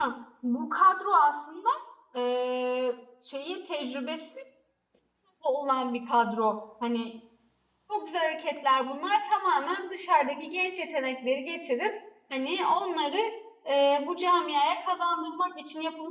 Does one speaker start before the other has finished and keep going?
No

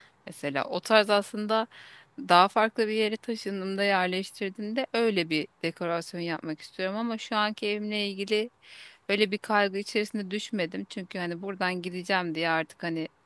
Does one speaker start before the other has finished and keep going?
No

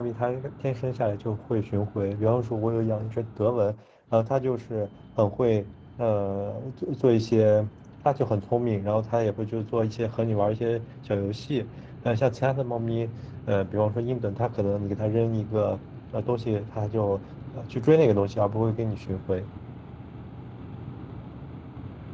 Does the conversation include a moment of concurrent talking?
No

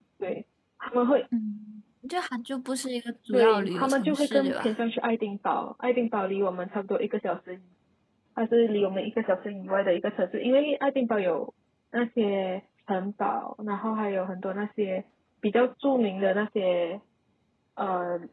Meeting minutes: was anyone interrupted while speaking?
Yes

